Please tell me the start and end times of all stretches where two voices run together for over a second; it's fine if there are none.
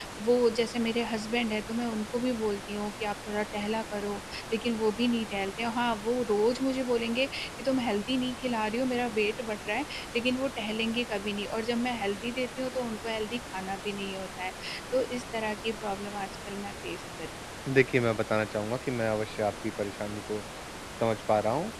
none

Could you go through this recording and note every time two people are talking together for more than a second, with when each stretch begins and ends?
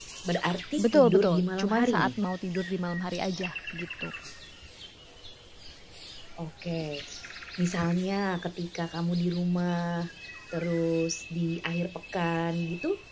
0.8-2.1

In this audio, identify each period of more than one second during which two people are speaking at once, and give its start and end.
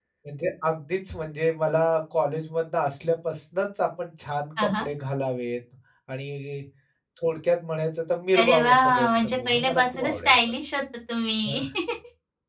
8.3-10.3

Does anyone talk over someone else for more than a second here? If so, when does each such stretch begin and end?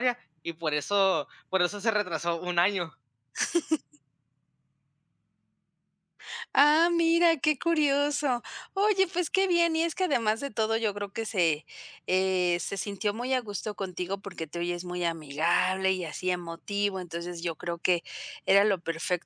none

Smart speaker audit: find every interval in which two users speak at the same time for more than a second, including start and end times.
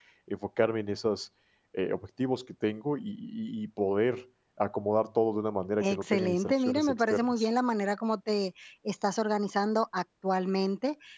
5.8-7.5

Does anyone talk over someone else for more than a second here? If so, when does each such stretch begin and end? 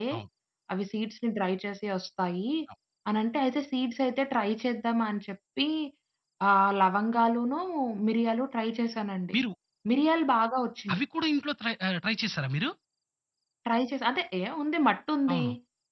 none

